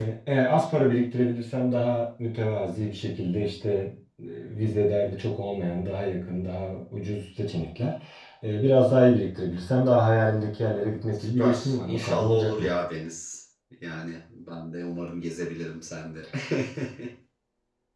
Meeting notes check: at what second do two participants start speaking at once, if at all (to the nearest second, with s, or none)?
11 s